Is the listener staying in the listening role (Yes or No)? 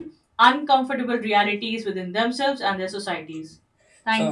No